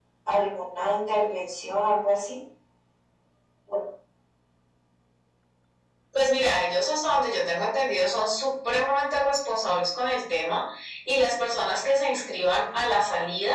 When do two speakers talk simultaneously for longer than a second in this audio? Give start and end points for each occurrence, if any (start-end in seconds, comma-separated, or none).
none